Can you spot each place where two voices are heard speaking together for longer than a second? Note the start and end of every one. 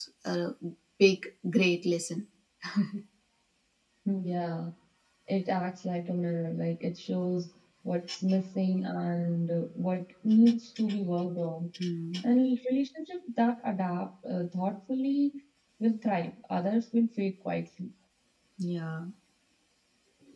none

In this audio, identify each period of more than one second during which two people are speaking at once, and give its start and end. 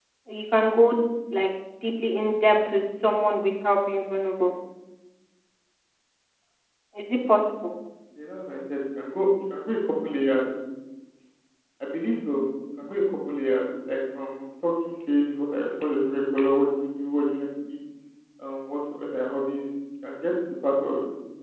none

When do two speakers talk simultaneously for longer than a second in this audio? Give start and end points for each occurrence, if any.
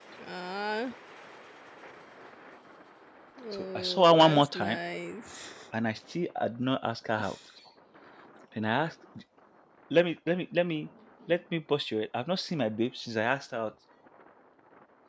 3.5-4.8

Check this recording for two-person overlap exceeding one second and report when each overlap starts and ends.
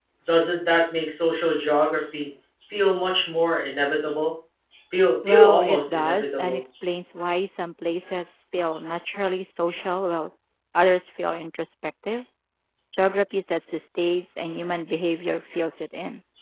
5.3-6.6

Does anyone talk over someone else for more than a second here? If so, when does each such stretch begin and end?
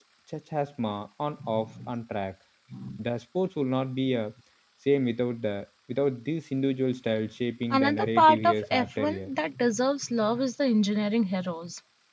7.7-9.3

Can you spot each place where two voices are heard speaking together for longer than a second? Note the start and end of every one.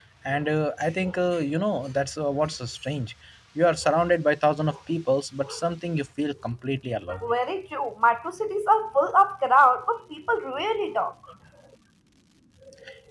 none

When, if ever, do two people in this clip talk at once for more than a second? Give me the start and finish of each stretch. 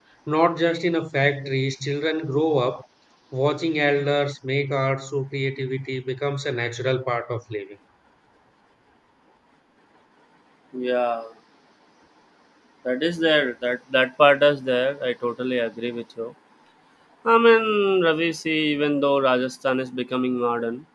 none

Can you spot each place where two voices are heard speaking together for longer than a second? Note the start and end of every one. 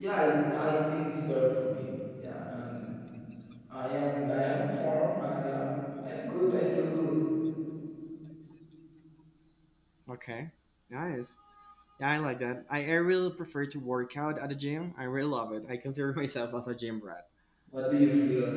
none

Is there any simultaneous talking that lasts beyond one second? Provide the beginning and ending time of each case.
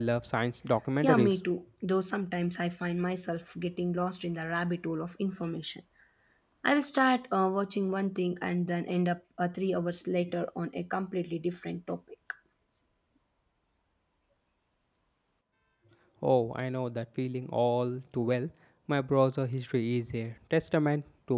none

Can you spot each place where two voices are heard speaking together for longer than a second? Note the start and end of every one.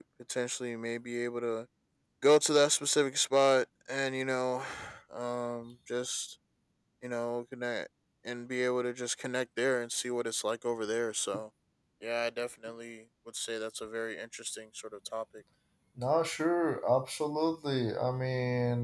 none

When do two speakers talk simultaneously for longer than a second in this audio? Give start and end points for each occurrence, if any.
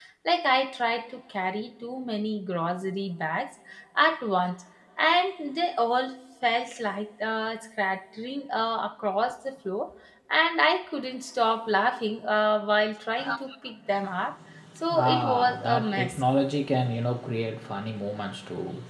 14.9-16.2

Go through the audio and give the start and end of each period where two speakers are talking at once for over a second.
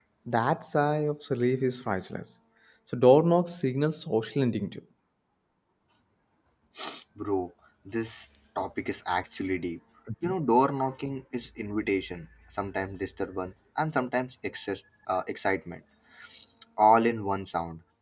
none

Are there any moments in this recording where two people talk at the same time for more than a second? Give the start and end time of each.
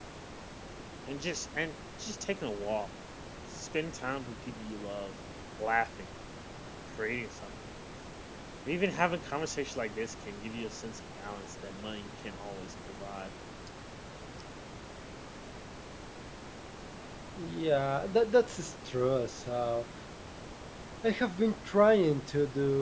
none

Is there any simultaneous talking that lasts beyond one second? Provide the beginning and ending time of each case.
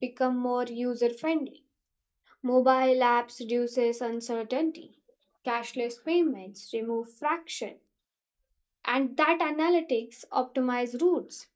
none

